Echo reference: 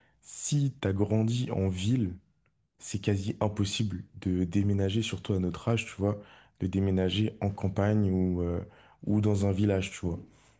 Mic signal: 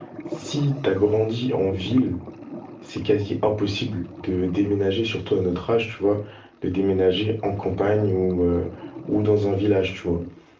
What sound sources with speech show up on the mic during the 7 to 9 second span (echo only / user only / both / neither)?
echo only